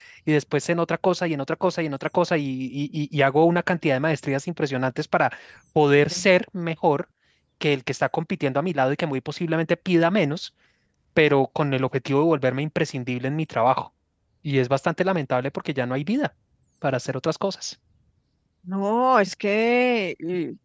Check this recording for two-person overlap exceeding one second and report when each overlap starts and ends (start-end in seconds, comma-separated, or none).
none